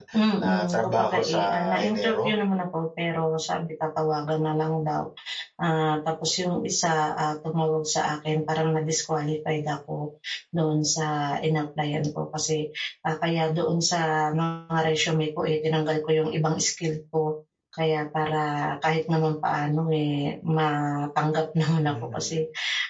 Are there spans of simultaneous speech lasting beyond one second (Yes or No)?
Yes